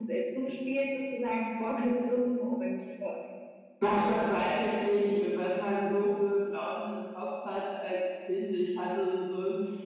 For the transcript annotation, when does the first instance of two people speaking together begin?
none

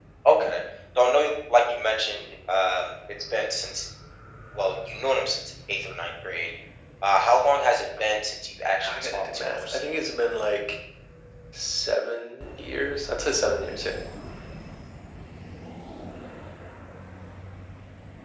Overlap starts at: 8.6 s

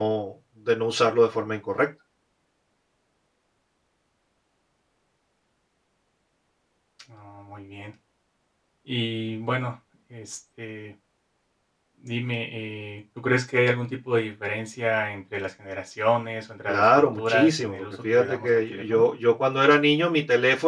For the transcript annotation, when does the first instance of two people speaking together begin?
16.7 s

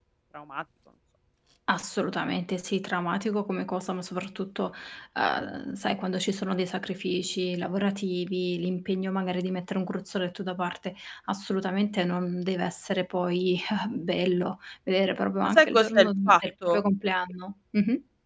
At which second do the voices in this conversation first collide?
15.4 s

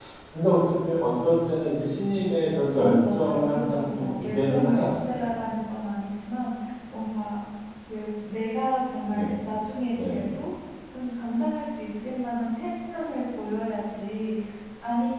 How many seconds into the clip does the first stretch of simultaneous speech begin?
2.8 s

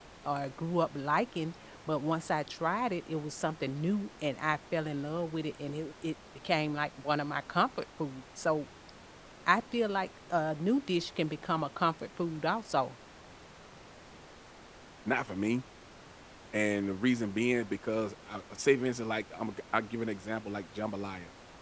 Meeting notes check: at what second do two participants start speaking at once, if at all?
none

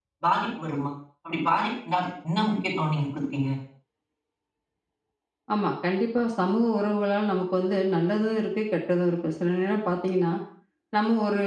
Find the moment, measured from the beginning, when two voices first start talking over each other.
none

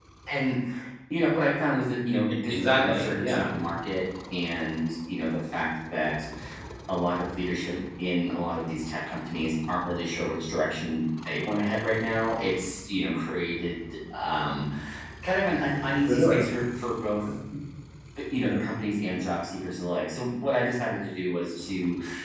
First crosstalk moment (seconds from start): 2.3 s

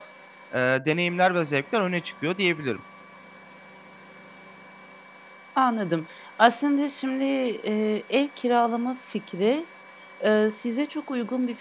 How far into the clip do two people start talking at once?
none

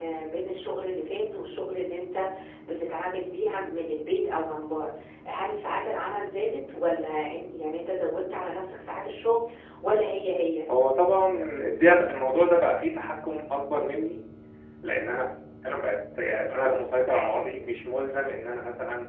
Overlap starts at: none

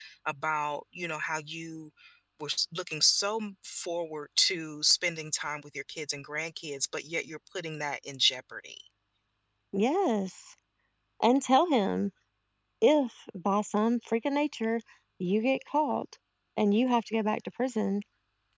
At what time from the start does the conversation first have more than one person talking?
none

